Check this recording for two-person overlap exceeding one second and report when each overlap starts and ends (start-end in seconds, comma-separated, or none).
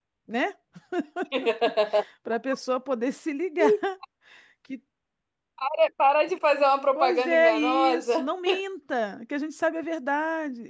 7.0-8.3